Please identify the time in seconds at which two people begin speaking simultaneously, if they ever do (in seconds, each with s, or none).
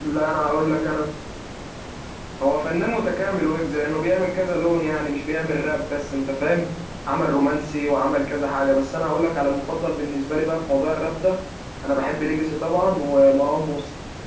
none